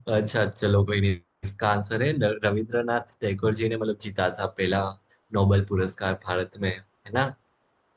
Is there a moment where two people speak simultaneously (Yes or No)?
No